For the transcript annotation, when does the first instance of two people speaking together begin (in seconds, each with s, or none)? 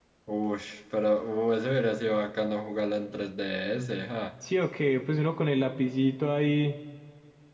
none